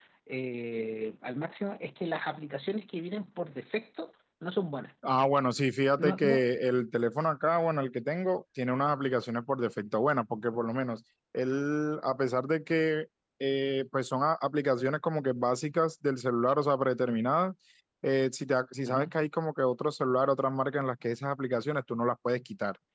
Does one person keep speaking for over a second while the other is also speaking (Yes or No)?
No